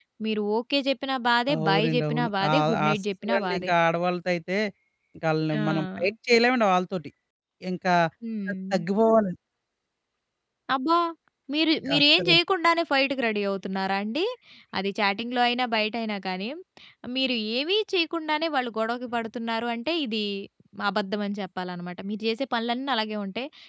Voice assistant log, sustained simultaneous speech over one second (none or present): present